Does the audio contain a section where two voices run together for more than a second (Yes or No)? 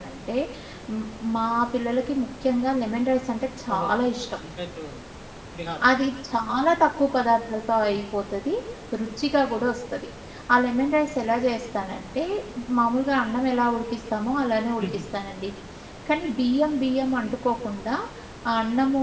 No